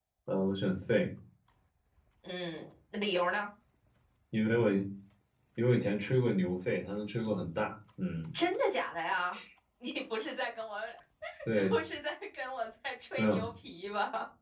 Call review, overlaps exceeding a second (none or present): none